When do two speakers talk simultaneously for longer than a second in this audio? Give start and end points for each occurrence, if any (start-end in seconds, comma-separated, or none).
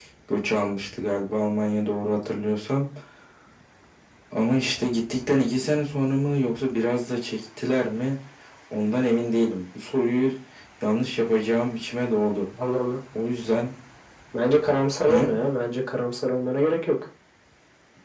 none